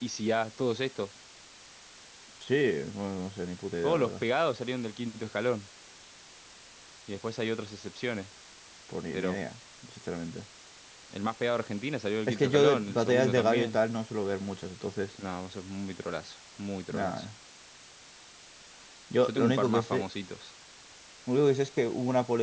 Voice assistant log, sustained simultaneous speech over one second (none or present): present